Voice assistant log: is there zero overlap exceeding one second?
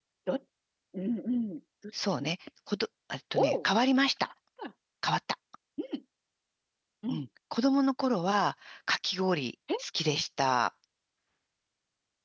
Yes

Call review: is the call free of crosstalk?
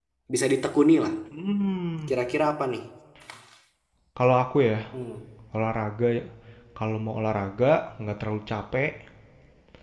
Yes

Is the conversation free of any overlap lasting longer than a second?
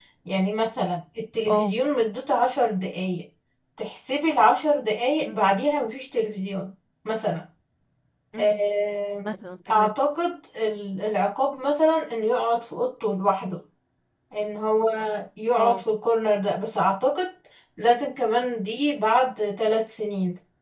Yes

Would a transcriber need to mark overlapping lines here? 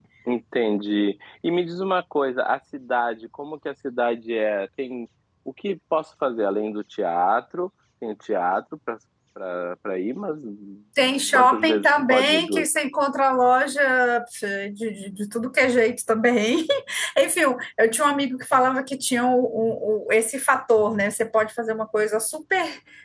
Yes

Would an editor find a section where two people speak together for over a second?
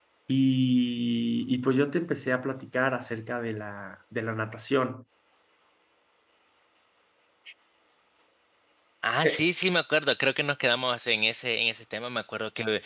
No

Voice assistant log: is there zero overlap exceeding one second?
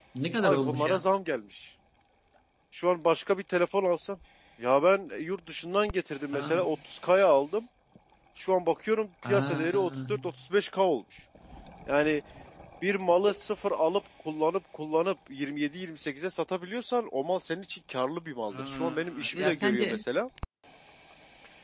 No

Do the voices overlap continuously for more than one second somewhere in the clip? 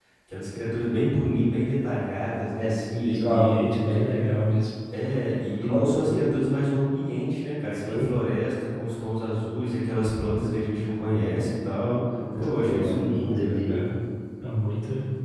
Yes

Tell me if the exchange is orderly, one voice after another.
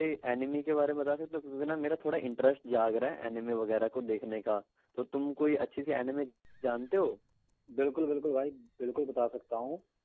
Yes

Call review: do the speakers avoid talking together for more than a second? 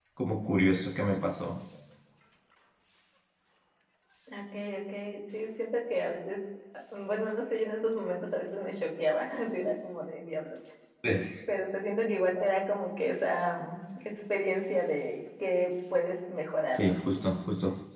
Yes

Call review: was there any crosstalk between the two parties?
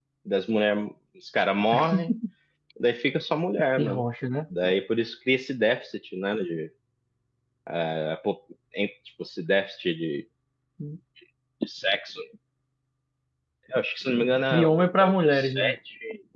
Yes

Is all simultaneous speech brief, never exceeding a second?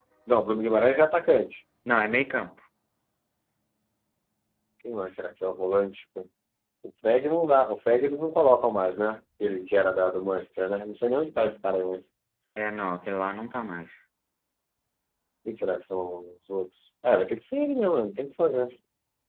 Yes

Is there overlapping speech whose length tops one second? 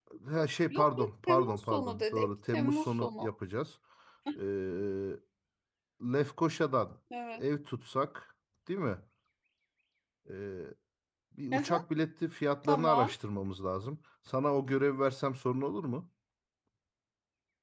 Yes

